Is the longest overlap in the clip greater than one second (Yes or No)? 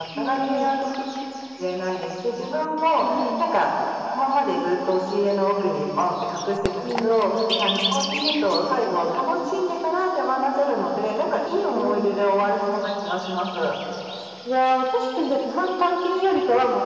No